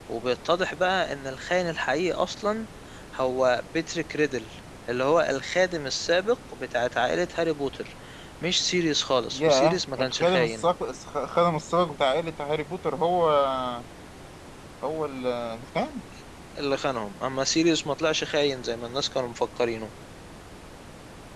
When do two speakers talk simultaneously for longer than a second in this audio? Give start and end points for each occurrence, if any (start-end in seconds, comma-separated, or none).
9.3-10.7